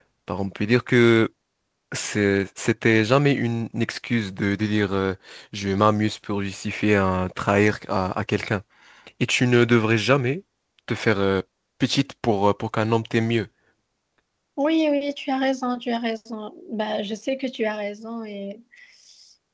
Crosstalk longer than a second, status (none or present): none